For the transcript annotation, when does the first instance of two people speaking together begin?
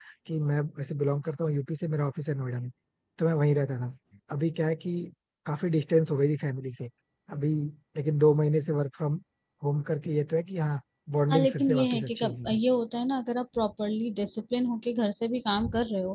11 s

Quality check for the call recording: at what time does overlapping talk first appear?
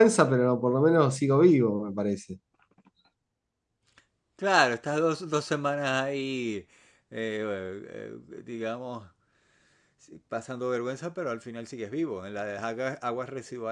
none

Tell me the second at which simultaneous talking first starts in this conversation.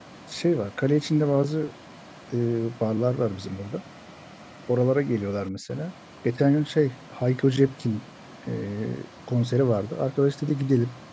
none

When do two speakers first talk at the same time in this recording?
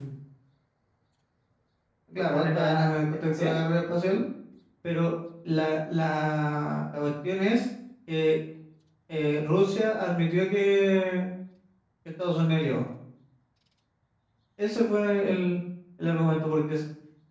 2 s

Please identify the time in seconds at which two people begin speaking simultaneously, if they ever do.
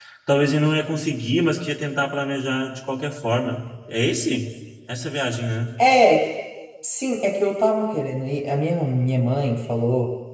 none

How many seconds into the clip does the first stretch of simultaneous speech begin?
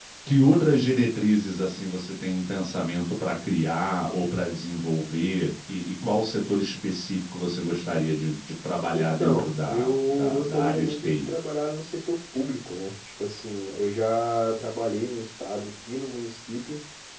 9 s

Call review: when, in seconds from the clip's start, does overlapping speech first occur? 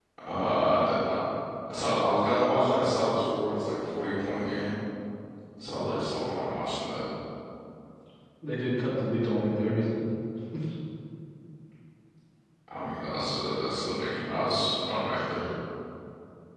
none

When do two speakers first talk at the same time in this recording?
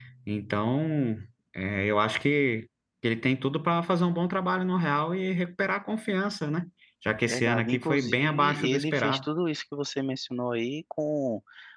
7 s

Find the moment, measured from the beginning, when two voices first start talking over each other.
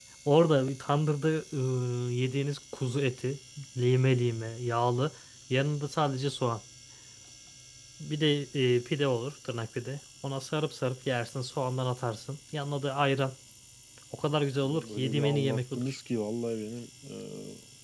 15 s

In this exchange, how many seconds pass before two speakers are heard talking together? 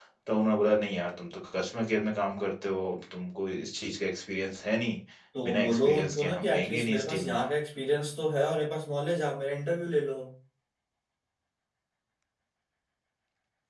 5 s

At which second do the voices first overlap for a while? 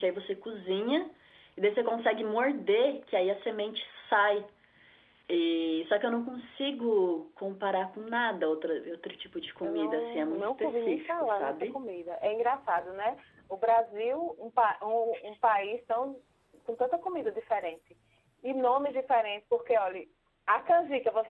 10 s

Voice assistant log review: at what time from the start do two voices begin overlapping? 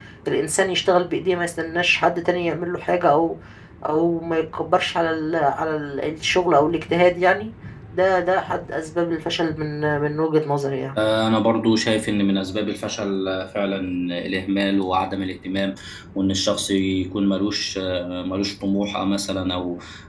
none

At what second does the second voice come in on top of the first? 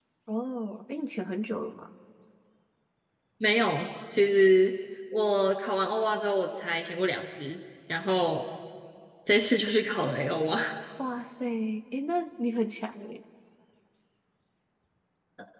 none

